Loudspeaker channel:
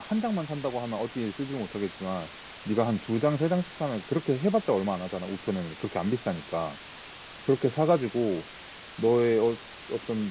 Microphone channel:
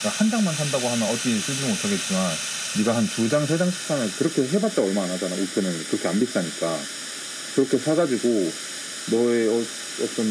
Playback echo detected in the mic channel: Yes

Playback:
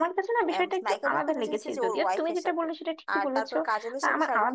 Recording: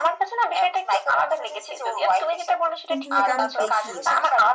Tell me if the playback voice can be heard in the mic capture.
Yes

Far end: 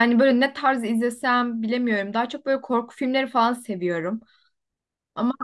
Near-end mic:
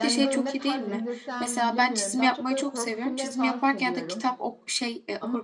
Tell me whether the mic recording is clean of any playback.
No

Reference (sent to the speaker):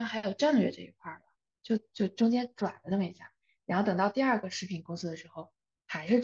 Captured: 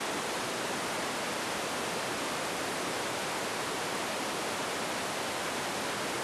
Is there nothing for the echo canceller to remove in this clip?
Yes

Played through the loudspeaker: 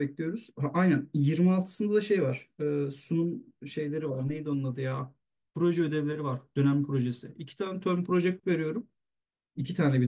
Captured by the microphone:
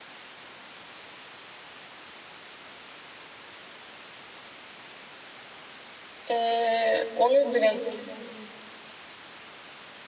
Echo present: No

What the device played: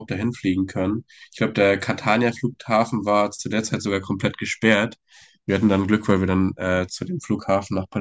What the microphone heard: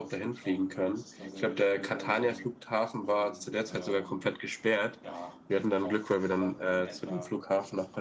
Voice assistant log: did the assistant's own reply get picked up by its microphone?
Yes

